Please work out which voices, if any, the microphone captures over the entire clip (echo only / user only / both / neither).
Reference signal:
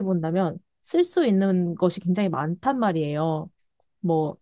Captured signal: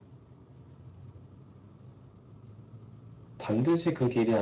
user only